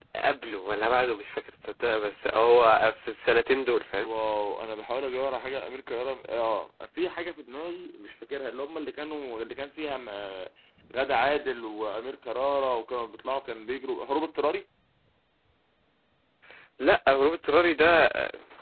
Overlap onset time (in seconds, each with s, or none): none